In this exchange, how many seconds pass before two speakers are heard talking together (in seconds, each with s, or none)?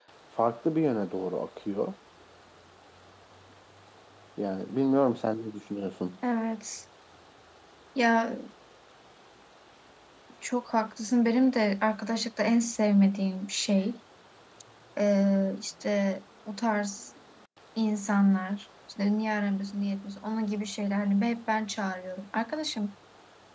none